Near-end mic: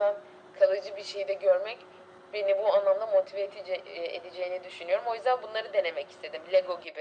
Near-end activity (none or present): none